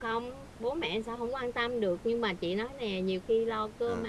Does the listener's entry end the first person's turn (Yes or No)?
No